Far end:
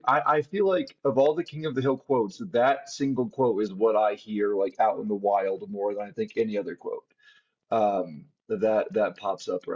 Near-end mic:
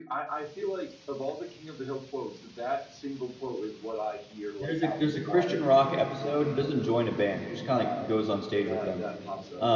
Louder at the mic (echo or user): user